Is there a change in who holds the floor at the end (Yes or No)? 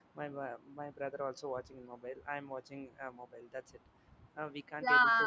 Yes